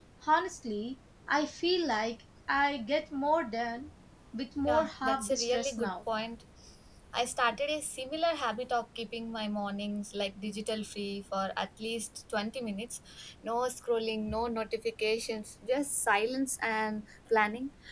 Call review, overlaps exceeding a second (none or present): present